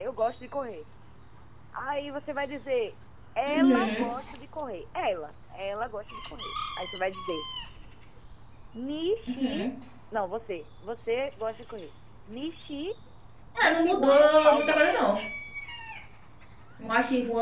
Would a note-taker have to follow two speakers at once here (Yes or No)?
Yes